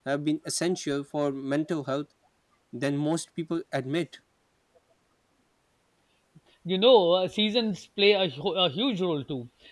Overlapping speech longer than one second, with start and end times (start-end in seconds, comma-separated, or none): none